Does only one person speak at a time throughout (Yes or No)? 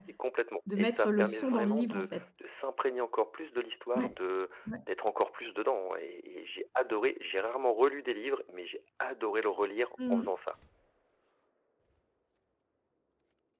No